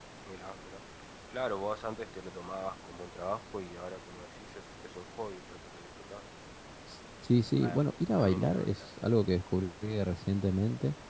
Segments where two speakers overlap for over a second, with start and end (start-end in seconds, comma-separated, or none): 7.6-8.8